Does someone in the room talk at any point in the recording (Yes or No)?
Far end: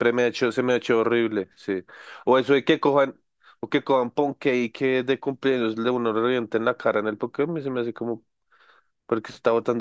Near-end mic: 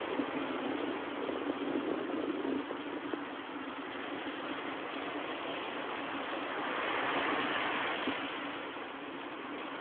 No